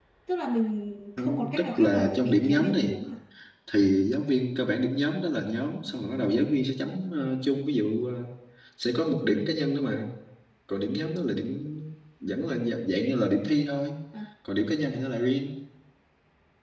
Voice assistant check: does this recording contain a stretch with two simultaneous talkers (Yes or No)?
Yes